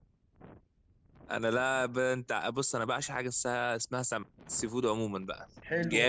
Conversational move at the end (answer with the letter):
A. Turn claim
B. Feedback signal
A